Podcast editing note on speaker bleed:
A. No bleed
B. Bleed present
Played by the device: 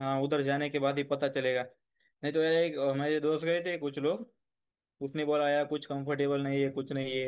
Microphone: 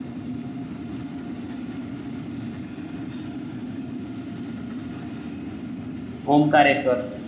A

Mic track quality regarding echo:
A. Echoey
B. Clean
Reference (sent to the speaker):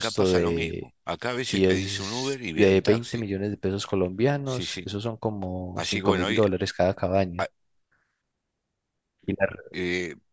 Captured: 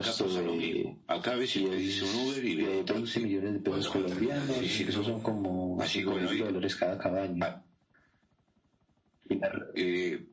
A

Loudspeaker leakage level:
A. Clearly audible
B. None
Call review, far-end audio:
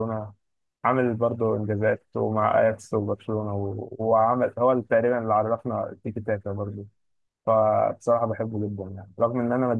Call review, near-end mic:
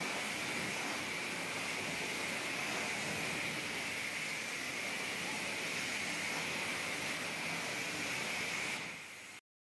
B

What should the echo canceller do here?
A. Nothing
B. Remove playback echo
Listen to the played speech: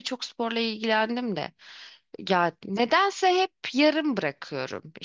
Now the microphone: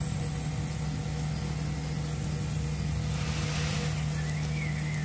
A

